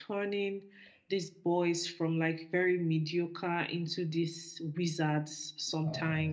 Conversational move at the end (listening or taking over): taking over